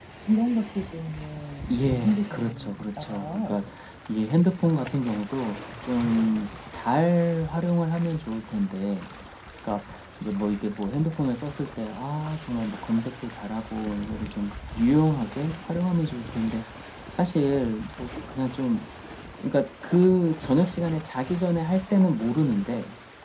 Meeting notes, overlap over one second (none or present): present